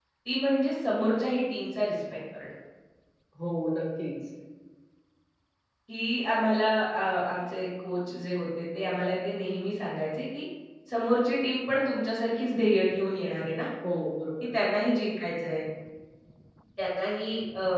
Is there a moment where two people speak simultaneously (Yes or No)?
No